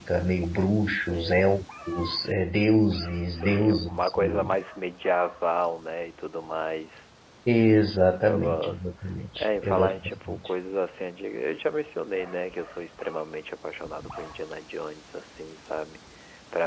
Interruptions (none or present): present